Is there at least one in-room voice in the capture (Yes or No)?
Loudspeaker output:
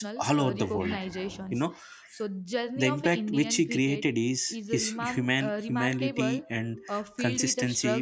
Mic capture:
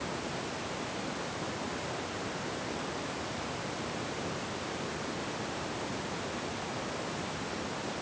No